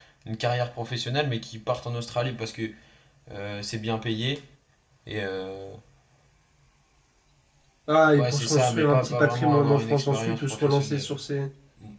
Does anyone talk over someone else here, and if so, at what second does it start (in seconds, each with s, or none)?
8.2 s